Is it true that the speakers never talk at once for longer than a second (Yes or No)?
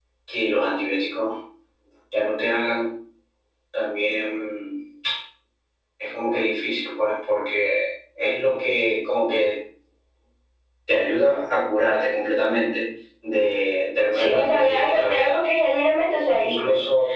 No